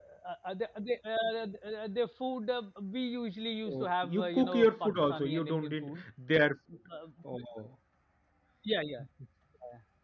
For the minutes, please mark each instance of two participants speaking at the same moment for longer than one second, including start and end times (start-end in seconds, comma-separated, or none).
3.7-6.0